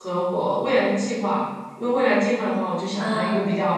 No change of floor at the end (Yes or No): Yes